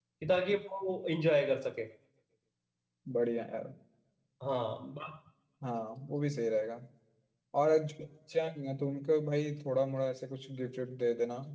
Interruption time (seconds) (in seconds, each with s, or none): none